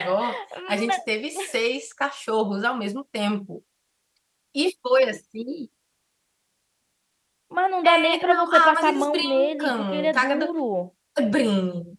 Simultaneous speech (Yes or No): Yes